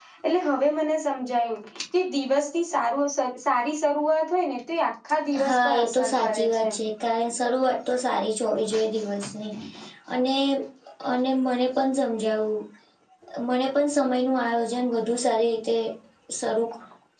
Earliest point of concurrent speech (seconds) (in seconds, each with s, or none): 5.4 s